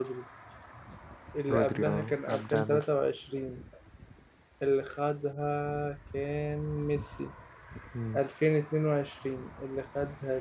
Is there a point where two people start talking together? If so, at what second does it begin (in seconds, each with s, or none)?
1.5 s